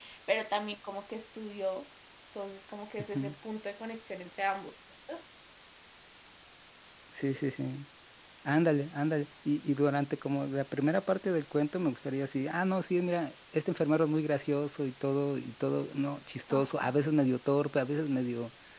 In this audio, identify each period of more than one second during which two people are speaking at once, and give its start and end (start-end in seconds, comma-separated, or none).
none